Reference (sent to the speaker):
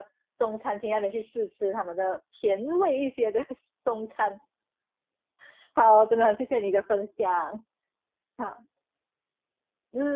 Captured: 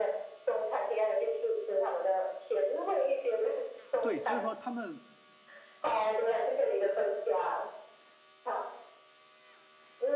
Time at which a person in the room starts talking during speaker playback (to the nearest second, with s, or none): 4 s